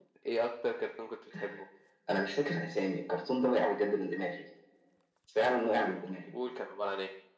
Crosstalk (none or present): none